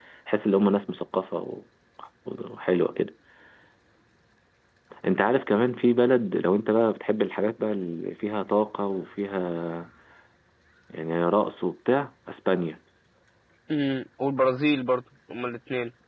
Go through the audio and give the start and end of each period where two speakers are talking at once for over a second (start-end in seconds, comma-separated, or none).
none